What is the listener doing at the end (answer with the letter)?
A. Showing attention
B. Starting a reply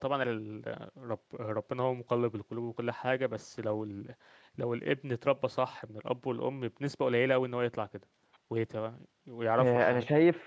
B